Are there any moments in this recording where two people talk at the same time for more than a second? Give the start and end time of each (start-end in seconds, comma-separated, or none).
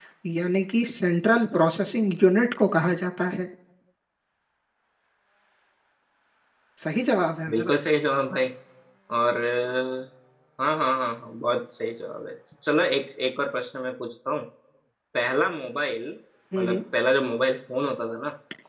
none